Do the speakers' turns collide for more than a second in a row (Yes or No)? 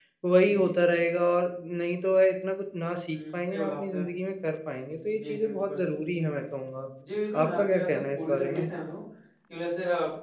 Yes